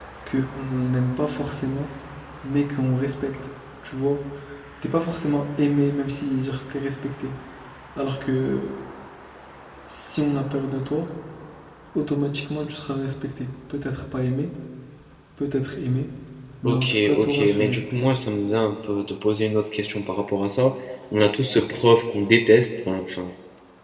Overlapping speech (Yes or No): Yes